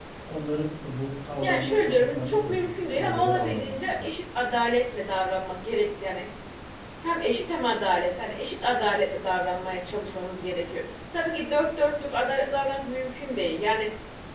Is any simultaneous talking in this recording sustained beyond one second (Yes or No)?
Yes